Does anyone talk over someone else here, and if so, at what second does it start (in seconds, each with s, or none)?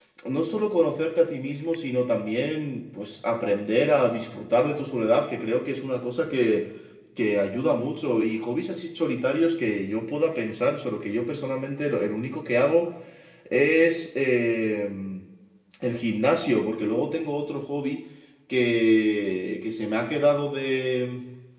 none